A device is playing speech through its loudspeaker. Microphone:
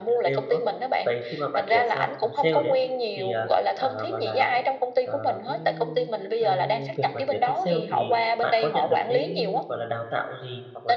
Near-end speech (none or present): present